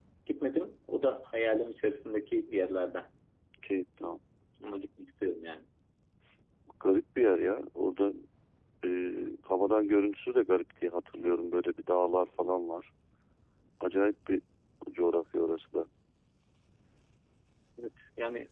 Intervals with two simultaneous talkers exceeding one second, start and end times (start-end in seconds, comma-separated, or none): none